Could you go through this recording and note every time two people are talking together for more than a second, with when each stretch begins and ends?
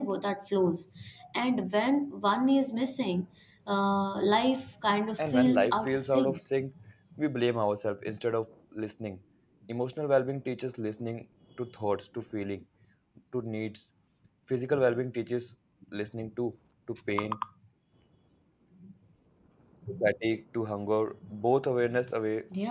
5.2-6.4

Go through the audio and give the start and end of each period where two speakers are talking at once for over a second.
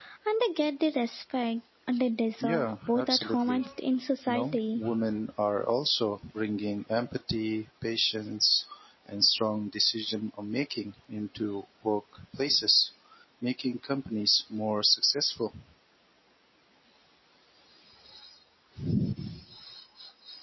2.4-3.6

